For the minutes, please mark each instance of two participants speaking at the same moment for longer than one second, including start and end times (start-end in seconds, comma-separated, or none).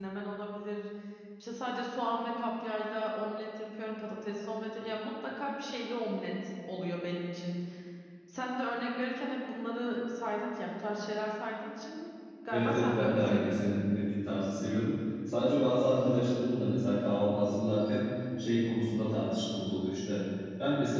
12.5-13.8